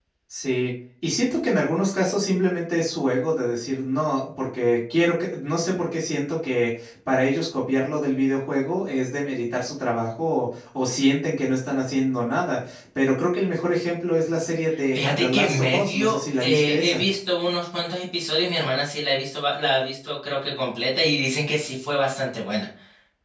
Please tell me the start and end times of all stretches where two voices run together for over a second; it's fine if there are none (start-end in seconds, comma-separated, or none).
14.9-17.0